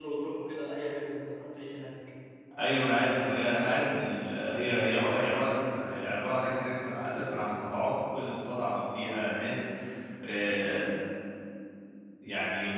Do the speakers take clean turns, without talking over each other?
Yes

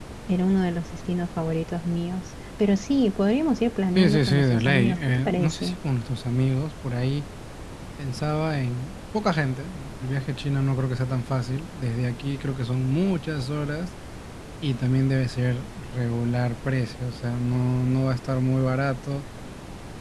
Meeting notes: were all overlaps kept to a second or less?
No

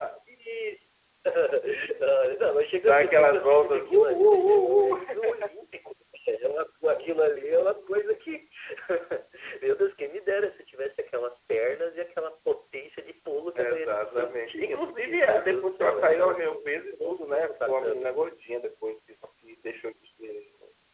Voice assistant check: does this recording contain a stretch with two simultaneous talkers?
Yes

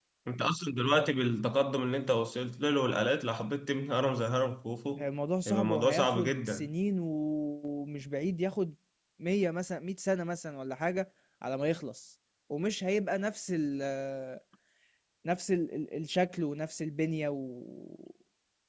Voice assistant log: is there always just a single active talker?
No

